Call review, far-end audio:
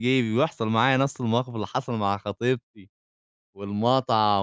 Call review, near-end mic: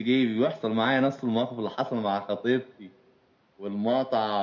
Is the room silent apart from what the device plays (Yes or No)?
Yes